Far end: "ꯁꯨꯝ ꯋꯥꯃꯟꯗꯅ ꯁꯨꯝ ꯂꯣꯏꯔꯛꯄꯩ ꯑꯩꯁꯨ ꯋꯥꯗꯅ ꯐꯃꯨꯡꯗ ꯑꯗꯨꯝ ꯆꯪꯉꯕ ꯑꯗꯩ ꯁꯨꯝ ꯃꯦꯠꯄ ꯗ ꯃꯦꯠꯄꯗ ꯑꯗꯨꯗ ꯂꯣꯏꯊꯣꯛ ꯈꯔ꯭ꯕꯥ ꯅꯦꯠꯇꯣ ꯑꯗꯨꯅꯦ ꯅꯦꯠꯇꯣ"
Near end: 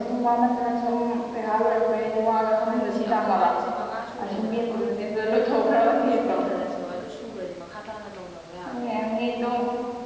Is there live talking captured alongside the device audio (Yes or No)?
Yes